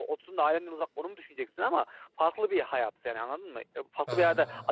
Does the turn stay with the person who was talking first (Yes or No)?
Yes